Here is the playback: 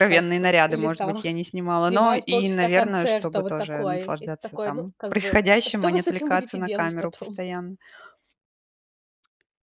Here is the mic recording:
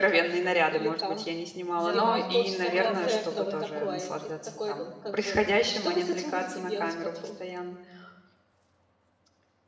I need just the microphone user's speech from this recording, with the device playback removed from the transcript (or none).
Да. Куда более приятно.